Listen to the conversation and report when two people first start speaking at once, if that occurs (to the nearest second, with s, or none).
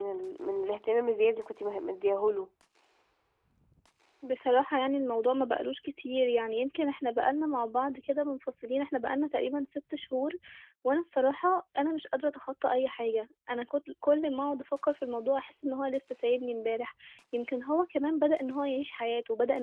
none